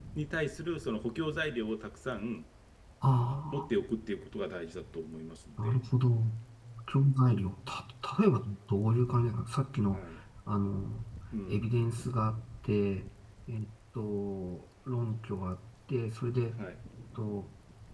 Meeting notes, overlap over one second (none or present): none